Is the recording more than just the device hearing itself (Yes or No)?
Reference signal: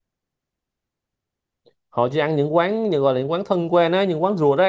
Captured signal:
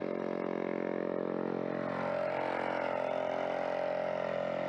No